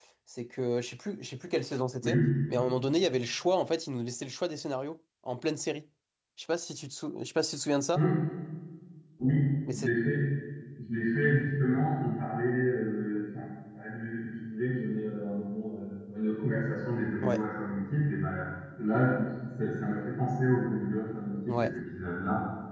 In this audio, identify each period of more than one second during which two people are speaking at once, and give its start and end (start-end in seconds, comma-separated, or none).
none